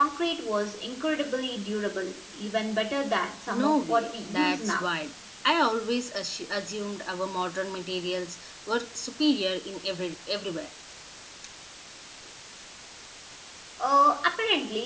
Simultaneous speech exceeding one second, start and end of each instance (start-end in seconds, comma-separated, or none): 3.5-4.8